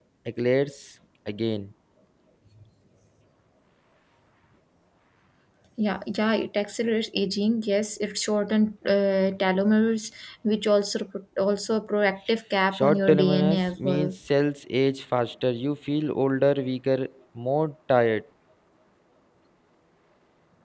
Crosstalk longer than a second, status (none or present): present